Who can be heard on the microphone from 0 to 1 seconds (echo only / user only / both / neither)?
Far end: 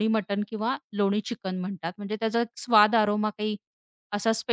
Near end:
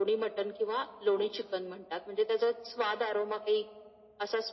echo only